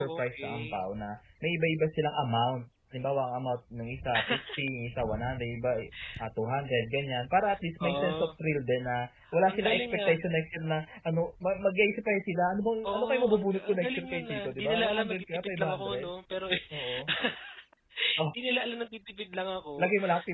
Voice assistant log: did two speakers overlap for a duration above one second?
Yes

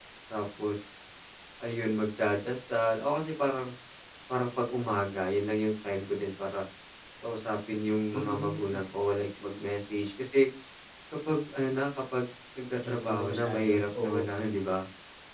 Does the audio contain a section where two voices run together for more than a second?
Yes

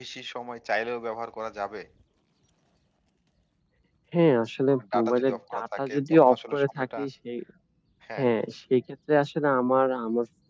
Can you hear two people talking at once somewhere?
Yes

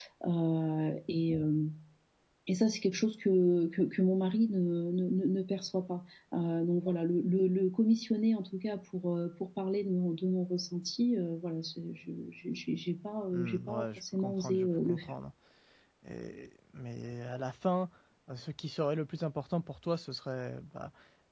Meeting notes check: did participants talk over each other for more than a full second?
Yes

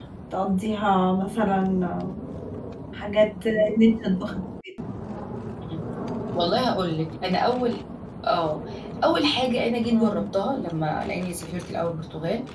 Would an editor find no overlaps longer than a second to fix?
Yes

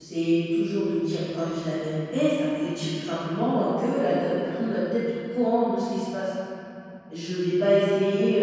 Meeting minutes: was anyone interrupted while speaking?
No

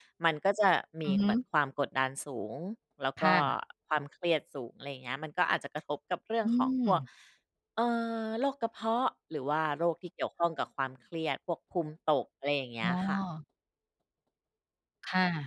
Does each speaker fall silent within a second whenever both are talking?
Yes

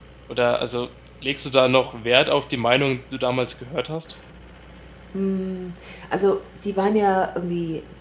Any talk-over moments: No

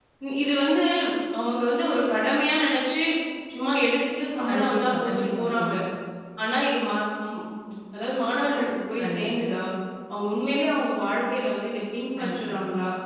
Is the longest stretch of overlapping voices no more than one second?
No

